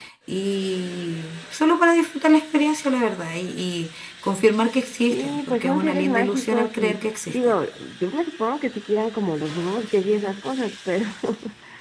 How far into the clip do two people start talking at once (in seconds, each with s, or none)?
5.1 s